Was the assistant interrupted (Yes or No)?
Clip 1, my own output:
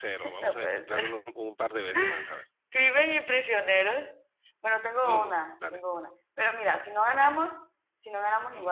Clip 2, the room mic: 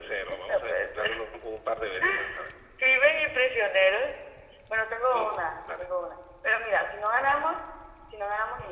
No